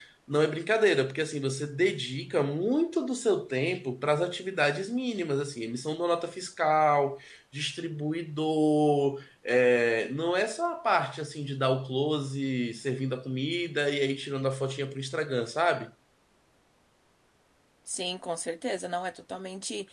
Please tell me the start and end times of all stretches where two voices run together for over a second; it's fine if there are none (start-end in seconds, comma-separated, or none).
none